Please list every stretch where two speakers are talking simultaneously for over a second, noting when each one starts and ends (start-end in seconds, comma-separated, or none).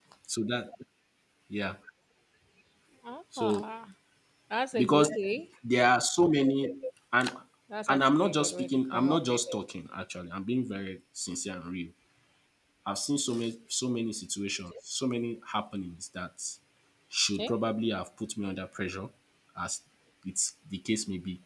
7.9-9.6